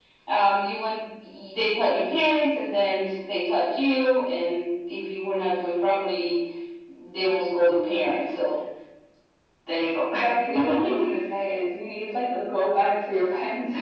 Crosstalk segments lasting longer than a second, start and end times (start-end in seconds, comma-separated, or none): none